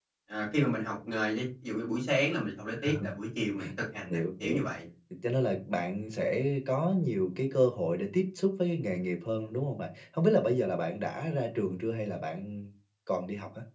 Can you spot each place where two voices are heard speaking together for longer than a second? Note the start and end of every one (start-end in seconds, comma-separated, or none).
none